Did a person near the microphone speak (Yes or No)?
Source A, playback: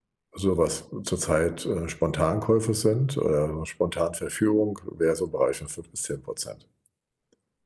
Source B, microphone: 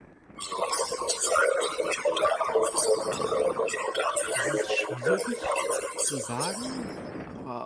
Yes